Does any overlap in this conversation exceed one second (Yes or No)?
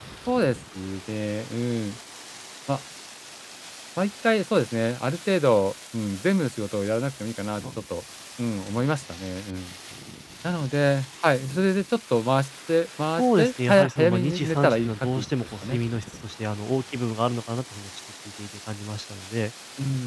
Yes